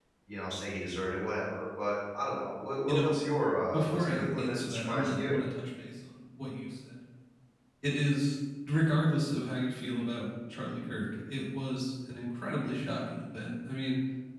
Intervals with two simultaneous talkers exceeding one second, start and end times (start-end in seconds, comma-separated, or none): 3.7-5.4